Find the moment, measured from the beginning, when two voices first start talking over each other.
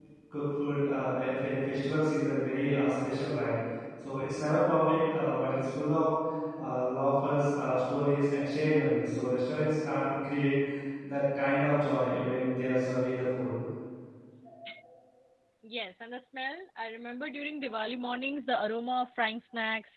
none

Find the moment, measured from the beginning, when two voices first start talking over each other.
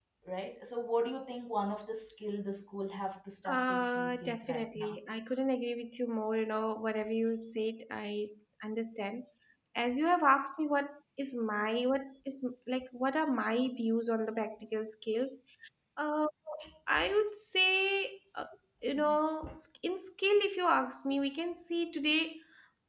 3.5 s

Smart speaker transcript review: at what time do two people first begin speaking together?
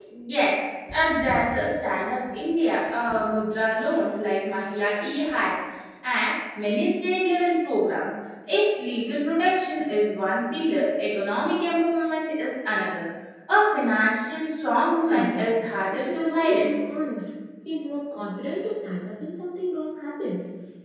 15.1 s

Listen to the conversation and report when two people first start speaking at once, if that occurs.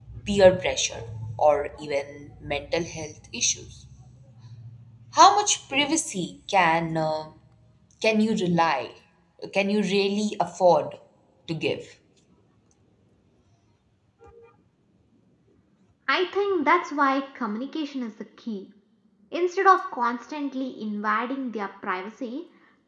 none

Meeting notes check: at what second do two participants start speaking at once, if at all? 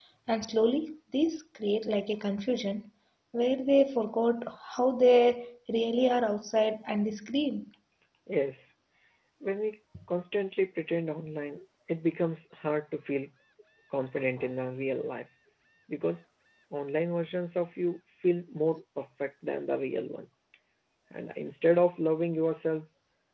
none

